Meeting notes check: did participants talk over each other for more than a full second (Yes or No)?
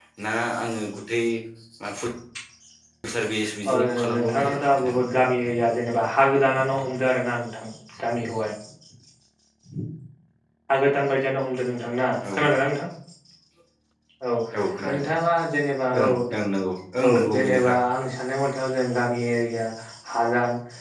Yes